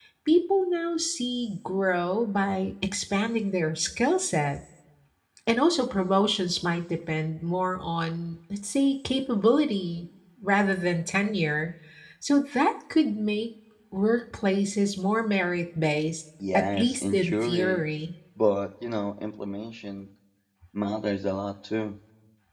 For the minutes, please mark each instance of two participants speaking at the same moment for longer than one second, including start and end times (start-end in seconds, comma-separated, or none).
16.5-17.8